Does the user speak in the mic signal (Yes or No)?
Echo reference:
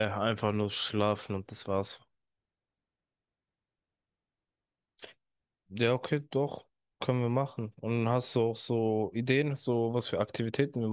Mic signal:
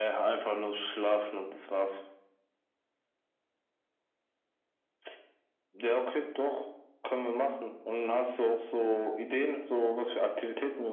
No